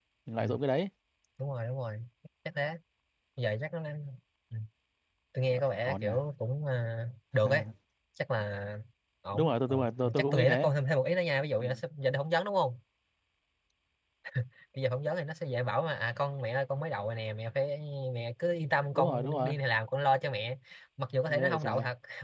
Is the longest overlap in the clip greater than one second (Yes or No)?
Yes